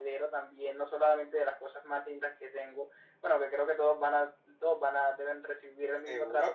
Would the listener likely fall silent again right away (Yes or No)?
No